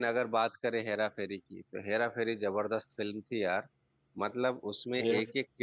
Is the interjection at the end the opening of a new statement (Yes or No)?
No